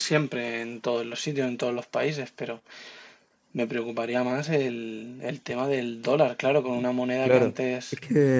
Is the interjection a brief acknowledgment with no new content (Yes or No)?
No